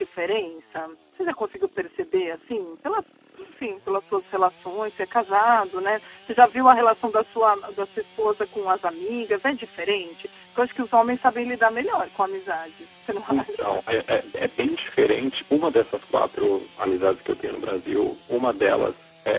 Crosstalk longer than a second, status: none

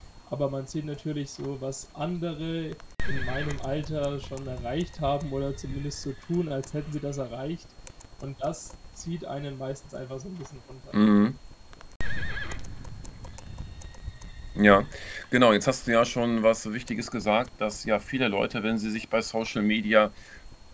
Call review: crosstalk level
none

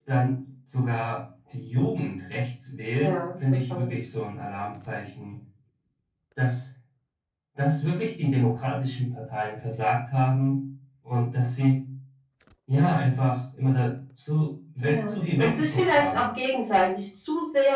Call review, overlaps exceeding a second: present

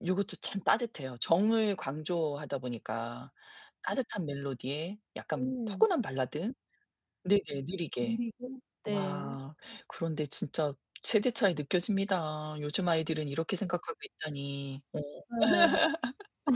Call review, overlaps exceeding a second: none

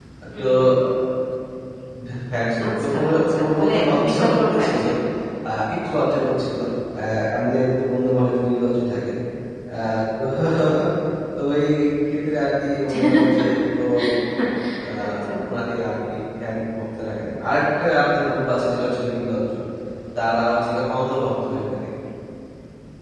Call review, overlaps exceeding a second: present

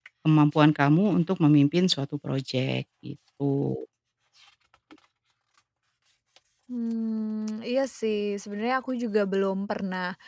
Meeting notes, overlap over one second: none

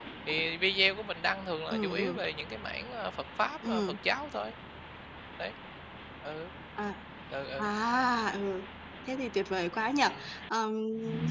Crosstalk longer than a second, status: none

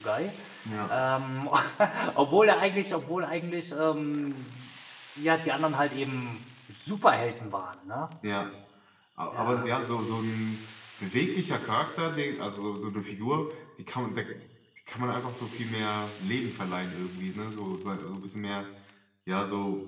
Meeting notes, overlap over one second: none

